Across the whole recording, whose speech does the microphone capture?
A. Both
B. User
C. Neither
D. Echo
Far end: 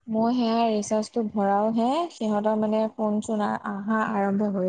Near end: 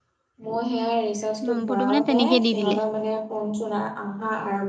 A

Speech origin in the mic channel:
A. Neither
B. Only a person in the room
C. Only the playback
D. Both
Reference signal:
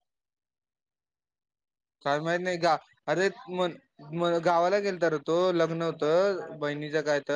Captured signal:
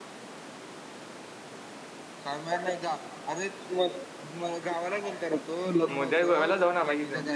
D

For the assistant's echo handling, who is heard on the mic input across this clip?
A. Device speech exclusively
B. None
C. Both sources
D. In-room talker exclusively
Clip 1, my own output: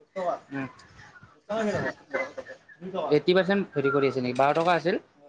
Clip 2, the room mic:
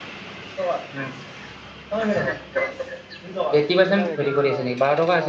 C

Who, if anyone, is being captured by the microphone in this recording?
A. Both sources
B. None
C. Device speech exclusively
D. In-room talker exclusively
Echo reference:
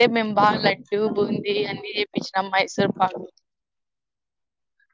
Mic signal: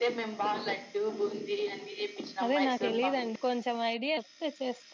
A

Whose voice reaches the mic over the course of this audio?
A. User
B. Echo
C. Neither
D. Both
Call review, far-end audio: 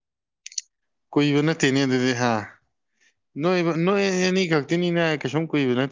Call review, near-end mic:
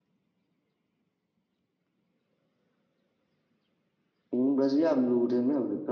A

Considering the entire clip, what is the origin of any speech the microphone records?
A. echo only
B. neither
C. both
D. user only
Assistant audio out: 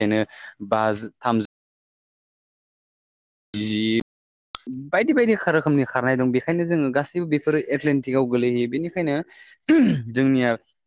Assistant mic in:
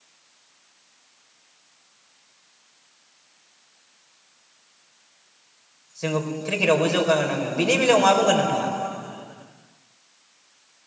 D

